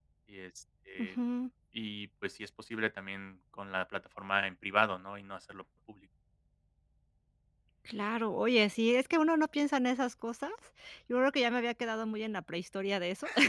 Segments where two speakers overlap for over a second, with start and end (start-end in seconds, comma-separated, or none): none